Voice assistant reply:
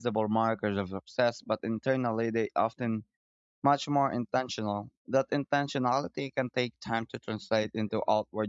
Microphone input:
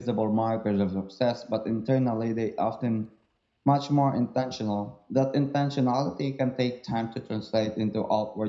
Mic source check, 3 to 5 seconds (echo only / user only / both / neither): echo only